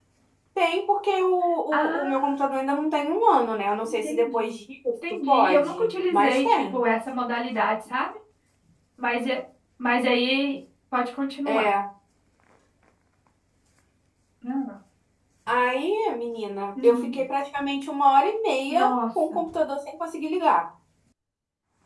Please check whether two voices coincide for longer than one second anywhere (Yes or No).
Yes